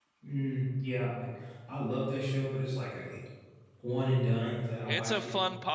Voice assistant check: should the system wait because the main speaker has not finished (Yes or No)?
No